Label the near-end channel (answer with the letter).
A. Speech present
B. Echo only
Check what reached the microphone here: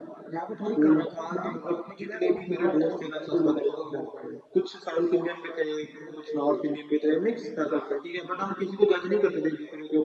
B